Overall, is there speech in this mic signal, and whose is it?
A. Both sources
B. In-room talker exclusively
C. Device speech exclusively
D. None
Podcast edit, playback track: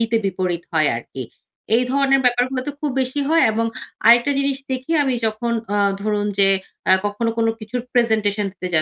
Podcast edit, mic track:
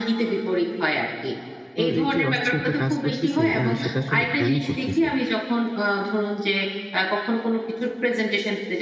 A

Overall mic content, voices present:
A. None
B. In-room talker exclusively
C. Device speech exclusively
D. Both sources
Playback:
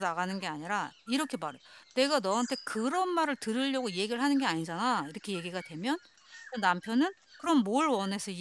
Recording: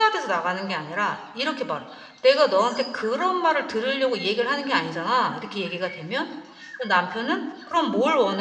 C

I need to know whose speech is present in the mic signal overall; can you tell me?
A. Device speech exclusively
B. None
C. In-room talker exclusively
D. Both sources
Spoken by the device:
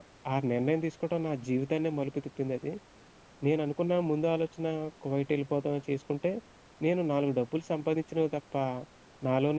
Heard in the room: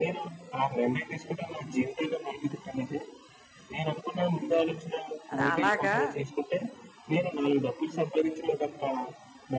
D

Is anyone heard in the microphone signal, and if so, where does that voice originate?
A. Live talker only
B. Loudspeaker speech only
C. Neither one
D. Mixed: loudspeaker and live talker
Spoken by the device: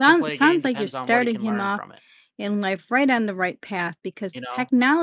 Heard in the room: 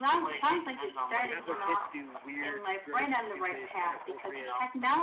D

